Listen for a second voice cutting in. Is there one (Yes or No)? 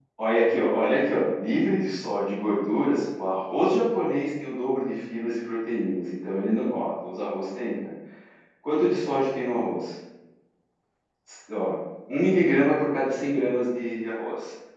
No